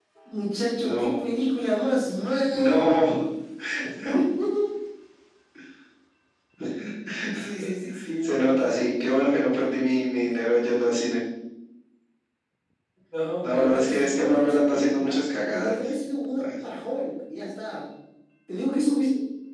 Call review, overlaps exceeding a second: present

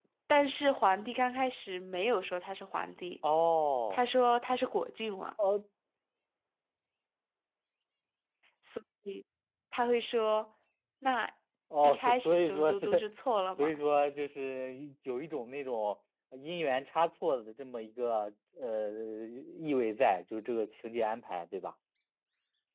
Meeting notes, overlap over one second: present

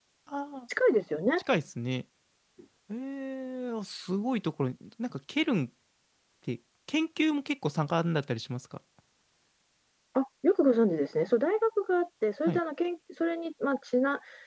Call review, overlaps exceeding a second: none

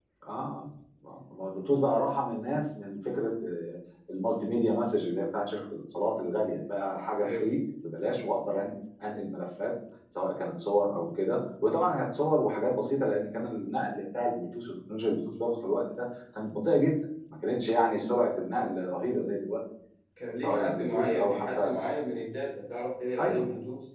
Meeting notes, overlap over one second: present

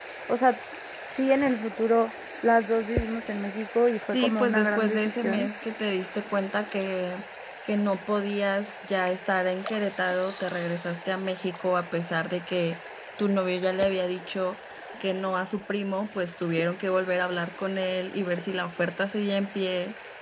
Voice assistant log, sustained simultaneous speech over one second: present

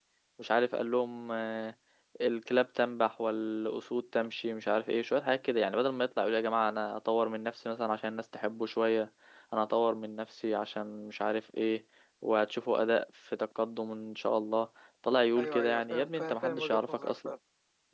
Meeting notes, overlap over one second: present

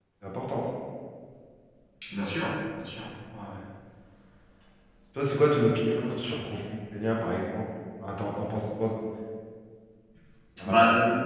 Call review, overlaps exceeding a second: none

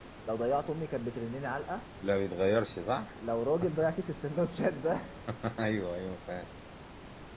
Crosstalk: none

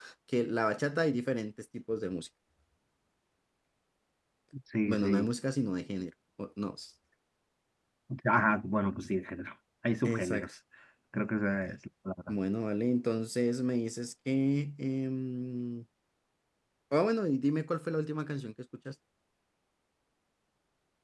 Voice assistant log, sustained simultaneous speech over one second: none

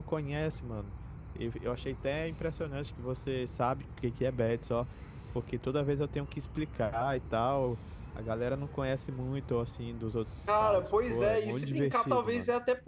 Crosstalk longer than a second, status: present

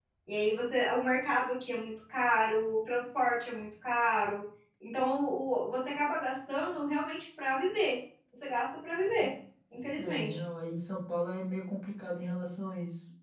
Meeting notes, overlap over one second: none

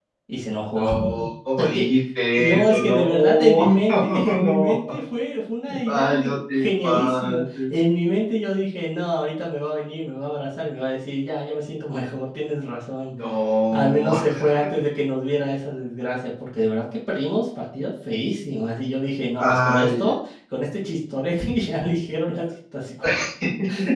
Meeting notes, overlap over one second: present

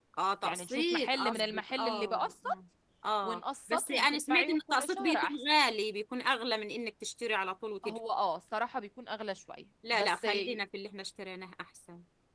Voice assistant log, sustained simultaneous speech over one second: present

